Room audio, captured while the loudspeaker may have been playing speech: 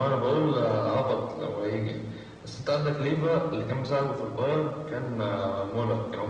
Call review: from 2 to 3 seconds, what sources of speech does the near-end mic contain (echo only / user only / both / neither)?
echo only